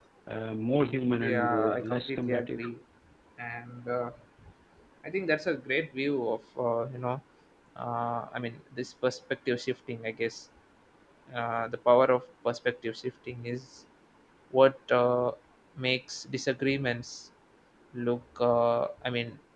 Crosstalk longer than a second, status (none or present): present